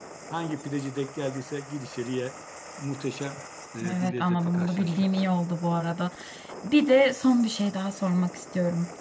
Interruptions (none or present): present